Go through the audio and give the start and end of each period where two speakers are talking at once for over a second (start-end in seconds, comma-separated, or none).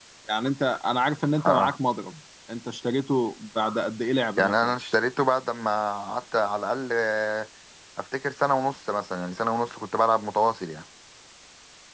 none